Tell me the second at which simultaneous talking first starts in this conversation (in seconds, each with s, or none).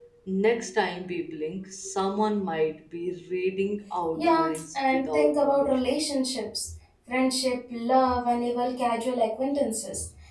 4.2 s